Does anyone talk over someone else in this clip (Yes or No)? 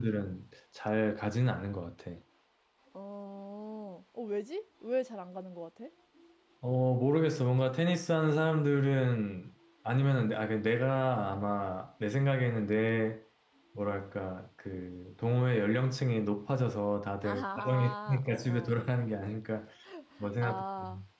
Yes